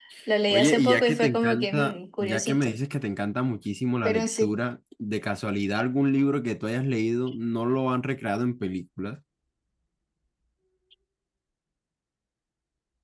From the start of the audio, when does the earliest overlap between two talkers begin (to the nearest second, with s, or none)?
1 s